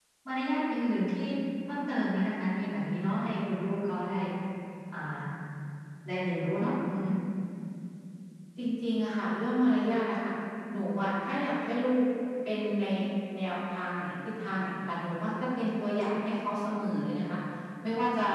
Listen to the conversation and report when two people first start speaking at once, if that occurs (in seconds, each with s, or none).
none